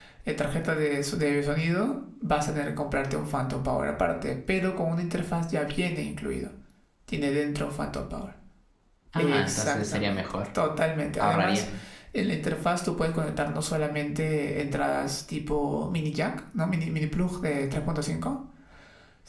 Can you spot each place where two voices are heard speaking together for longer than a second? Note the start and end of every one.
9.2-10.4

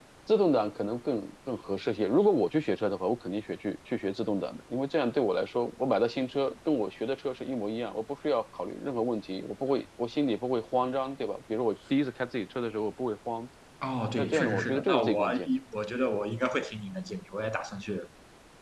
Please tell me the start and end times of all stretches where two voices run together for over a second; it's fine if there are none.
14.2-15.5

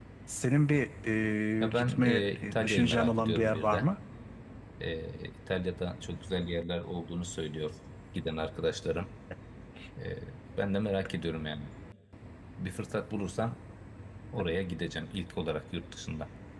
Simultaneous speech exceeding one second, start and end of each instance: 1.6-3.9

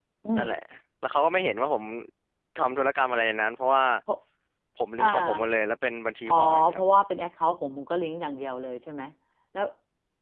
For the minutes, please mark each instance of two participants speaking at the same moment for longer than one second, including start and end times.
none

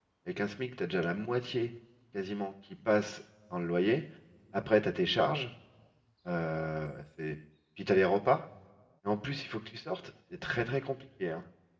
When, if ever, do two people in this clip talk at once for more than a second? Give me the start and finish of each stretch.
none

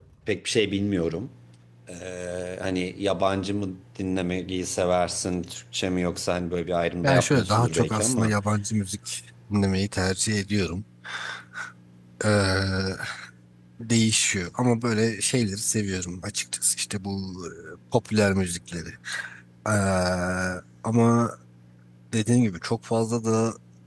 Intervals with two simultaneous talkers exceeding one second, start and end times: 7.0-8.3

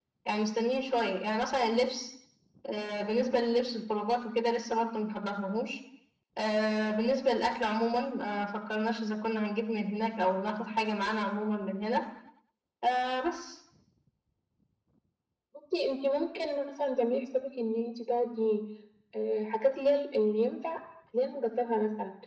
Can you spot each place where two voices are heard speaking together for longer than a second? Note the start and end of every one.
none

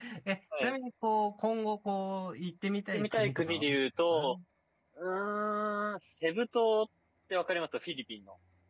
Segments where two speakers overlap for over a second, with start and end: 2.9-4.4

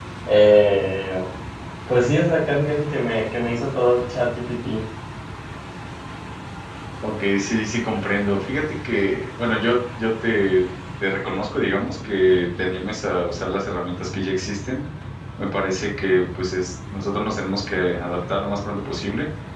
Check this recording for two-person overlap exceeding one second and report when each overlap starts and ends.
none

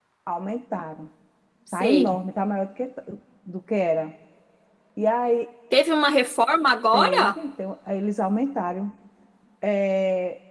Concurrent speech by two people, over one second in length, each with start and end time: none

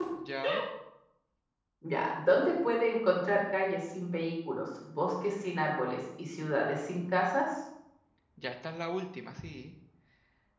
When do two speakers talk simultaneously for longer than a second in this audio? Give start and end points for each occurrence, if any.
none

